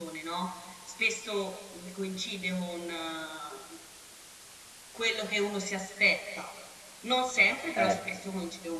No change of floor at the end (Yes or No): Yes